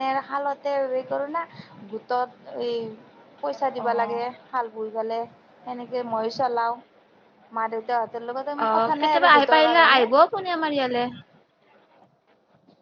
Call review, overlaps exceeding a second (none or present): present